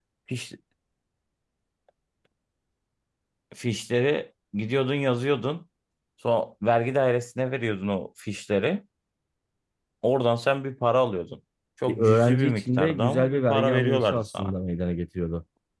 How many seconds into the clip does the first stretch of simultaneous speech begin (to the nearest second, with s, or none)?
12 s